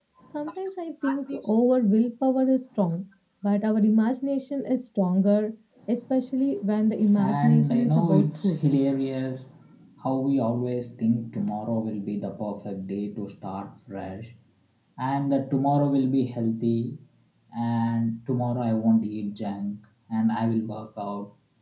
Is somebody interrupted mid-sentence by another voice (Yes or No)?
Yes